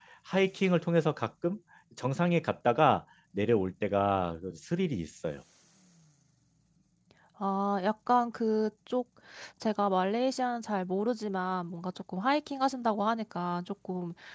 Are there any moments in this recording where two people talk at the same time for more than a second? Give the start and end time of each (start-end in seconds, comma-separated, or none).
none